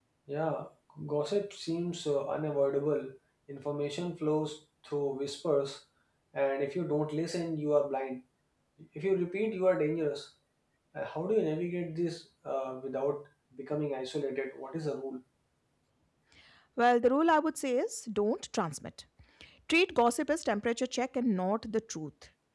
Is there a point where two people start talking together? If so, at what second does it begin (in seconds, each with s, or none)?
none